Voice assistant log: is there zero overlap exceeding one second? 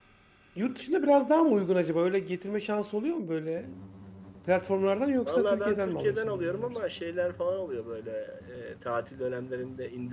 No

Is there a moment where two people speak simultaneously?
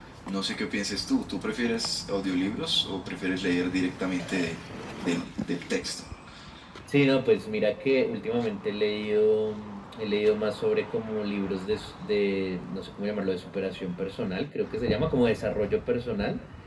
No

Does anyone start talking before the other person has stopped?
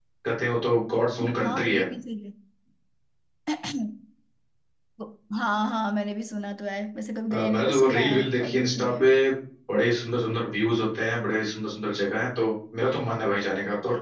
Yes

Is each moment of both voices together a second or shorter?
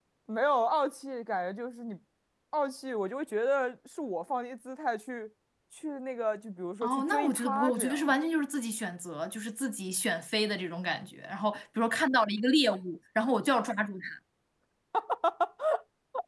No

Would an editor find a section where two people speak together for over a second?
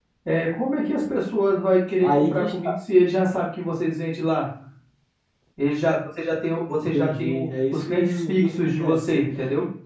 Yes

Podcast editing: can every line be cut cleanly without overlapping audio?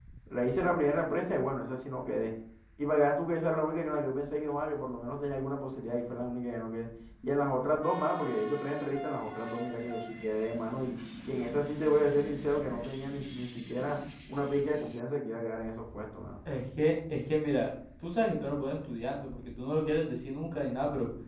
Yes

